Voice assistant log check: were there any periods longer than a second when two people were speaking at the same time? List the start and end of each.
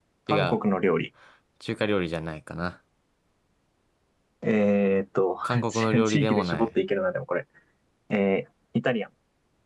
5.4-6.8

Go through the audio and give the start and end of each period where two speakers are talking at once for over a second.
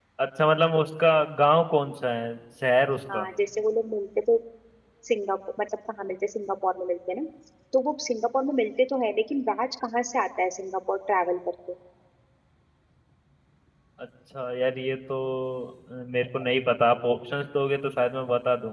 none

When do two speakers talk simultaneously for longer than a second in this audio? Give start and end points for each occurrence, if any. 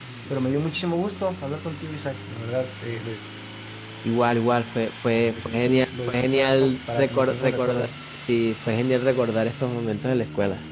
5.4-7.9

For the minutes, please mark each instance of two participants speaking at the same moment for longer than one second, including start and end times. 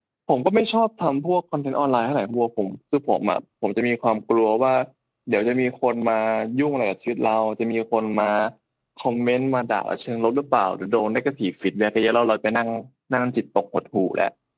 none

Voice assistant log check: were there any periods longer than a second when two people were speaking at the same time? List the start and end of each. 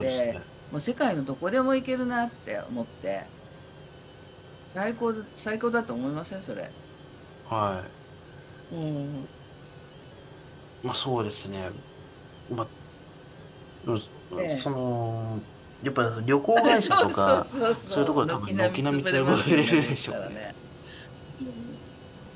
16.6-20.4

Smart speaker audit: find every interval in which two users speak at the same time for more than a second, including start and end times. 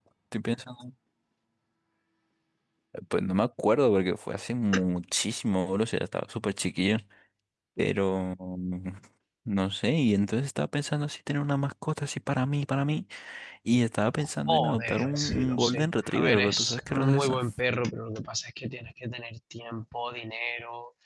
14.2-17.4

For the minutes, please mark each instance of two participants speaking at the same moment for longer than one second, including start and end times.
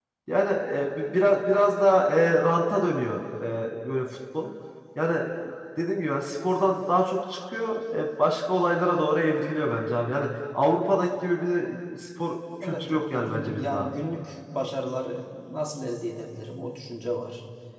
12.6-13.9

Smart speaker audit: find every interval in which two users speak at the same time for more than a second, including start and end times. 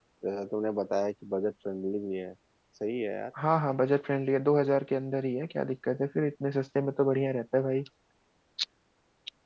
none

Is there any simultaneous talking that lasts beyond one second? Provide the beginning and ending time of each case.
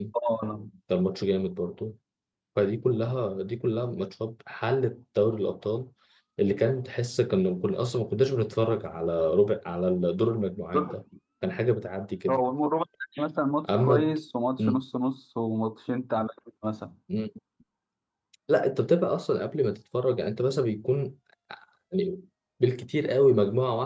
none

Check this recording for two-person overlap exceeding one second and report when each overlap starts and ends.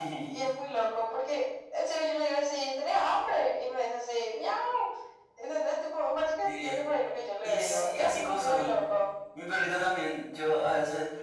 7.4-8.7

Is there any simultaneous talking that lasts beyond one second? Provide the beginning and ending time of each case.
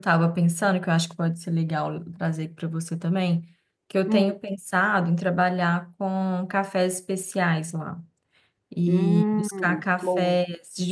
8.9-10.4

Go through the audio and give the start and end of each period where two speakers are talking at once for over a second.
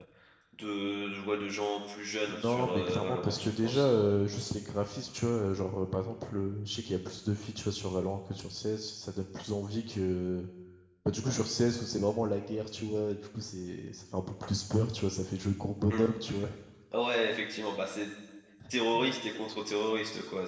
2.3-3.9

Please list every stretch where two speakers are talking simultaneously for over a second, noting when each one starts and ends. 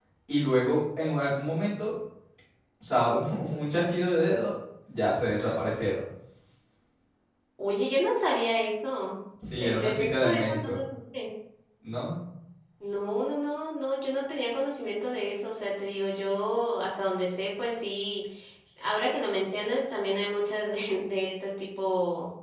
9.5-10.8

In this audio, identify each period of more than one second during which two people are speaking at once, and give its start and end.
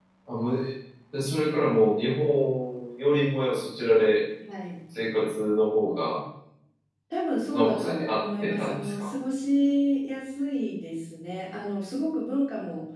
7.5-9.1

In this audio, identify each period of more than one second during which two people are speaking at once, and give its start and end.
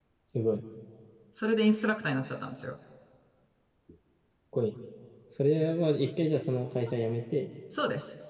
none

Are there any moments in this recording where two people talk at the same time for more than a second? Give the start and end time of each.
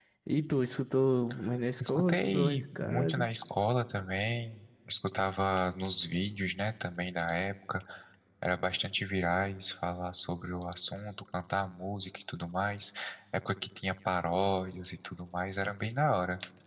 1.8-3.3

